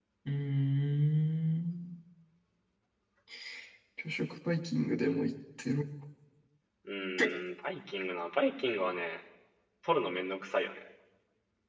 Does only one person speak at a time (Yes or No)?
Yes